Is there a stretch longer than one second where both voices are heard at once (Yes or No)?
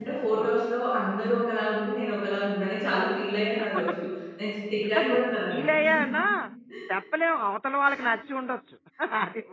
No